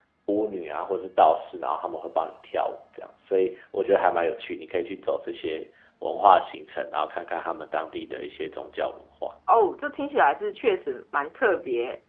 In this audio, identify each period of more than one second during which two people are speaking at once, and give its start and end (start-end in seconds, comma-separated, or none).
none